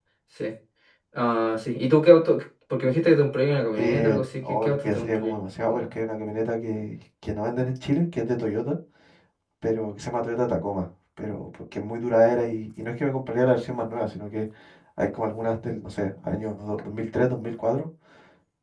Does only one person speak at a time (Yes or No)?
No